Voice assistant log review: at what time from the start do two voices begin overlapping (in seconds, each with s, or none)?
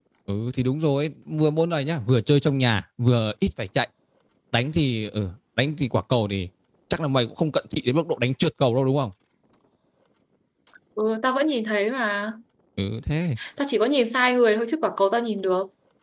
none